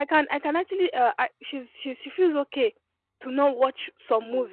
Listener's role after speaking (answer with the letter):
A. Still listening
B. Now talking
A